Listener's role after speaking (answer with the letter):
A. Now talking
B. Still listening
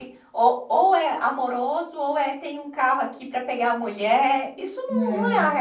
B